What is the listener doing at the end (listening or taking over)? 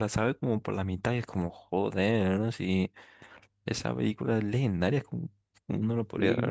taking over